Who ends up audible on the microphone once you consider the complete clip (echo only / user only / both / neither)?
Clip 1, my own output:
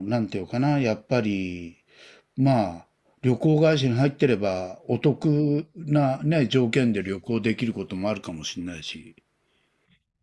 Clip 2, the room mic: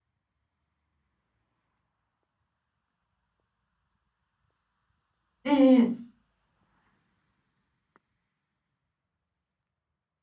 user only